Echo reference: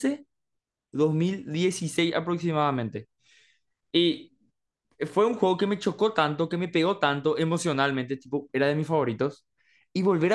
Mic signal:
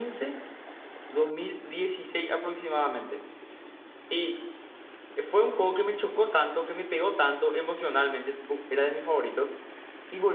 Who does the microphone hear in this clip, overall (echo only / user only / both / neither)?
echo only